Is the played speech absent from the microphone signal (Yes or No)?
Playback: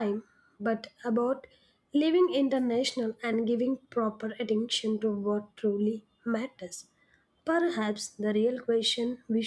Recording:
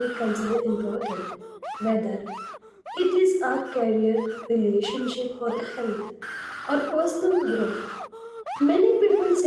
Yes